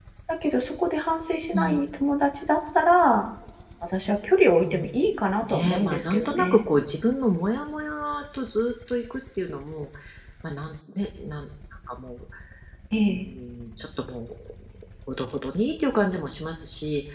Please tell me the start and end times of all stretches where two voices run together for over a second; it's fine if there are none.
5.4-6.7

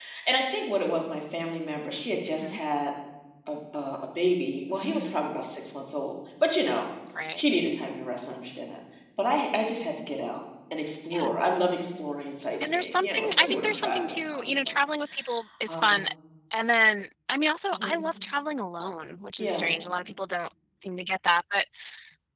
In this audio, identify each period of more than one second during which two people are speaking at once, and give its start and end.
12.7-14.6

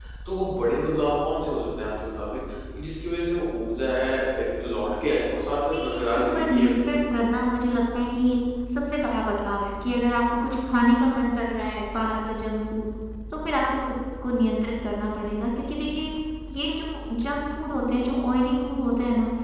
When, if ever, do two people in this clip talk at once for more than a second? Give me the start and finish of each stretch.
5.7-6.9

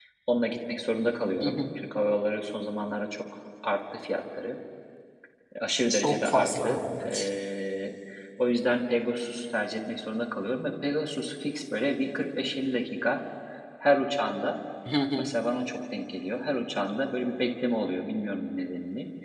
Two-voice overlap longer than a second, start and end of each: 5.9-7.3

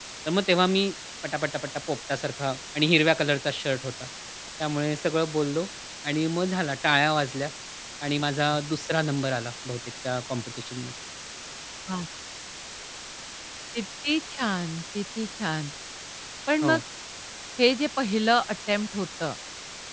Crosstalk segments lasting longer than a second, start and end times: none

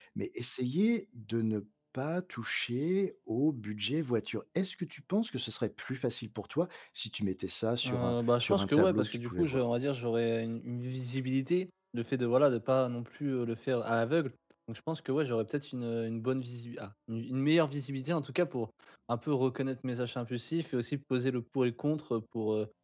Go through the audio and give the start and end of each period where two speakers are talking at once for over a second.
7.8-9.6

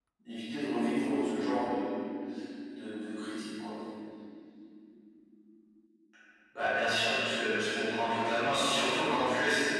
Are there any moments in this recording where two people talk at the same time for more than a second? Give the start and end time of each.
none

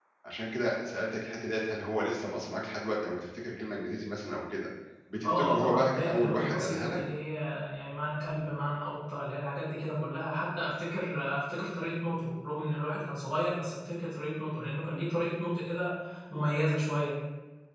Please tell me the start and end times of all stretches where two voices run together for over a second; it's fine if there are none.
5.2-7.0

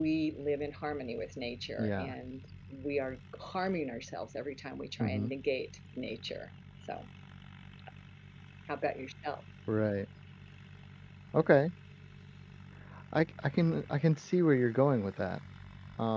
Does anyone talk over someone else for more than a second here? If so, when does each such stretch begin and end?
none

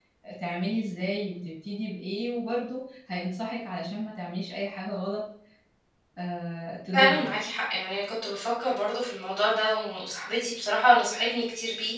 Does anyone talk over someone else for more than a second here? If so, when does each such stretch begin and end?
none

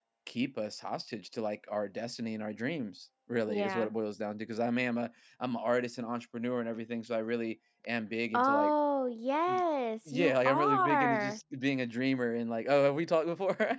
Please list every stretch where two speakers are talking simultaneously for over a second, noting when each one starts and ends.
10.1-11.4

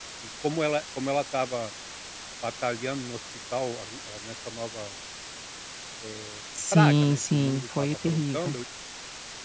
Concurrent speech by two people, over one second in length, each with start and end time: 6.7-8.6

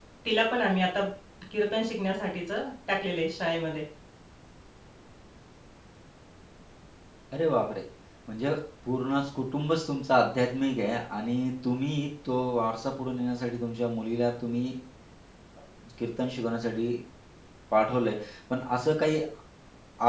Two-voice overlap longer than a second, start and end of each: none

